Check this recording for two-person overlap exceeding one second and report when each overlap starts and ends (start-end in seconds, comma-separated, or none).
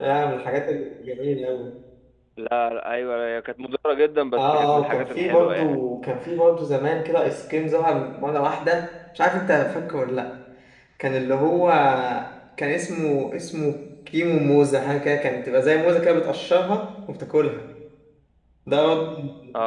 4.4-5.8